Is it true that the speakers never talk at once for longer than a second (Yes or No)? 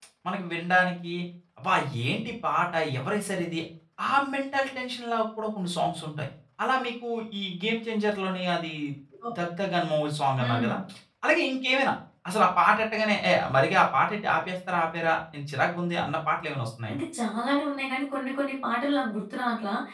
Yes